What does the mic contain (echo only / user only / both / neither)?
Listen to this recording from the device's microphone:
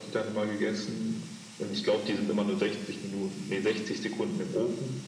echo only